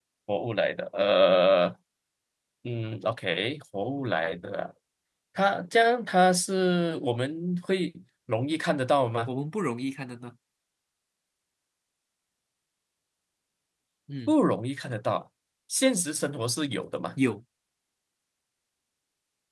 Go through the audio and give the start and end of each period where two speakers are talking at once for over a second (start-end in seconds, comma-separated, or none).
none